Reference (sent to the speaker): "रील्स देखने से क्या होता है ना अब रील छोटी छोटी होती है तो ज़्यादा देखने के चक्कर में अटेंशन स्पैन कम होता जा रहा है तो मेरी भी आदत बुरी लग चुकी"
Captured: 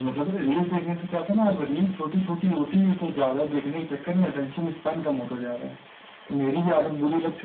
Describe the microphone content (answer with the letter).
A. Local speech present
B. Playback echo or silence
B